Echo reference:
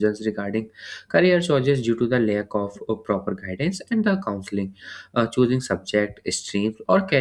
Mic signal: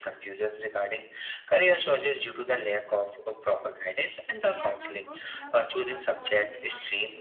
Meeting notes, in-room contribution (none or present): present